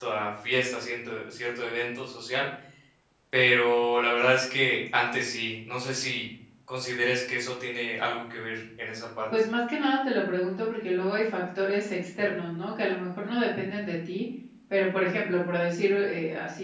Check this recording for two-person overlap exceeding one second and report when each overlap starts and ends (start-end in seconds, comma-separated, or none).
none